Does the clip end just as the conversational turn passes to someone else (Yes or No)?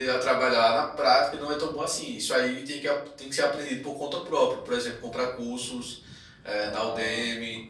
Yes